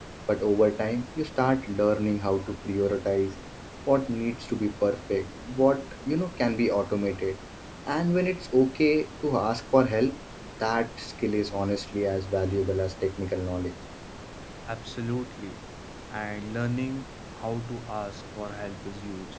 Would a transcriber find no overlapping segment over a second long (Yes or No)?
Yes